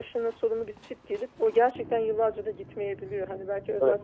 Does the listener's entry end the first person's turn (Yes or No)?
No